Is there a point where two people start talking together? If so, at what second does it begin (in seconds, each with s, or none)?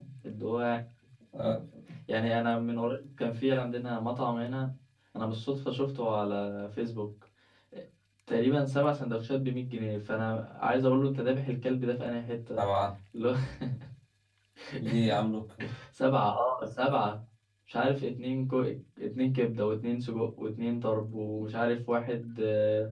none